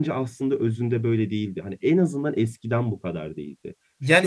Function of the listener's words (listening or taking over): taking over